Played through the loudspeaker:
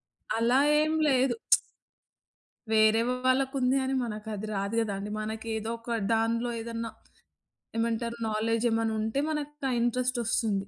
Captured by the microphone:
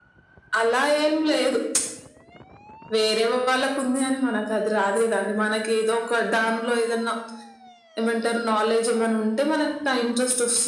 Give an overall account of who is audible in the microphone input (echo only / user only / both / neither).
echo only